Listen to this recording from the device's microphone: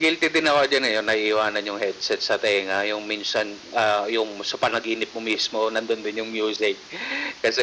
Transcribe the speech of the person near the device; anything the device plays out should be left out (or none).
none